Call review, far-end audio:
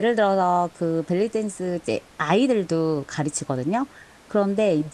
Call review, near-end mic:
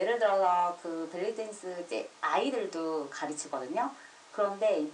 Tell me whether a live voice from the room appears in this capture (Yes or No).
No